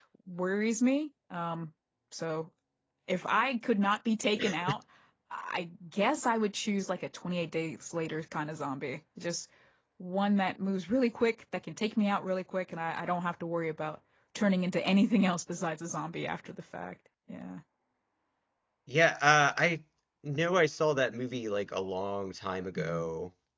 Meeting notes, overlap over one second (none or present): none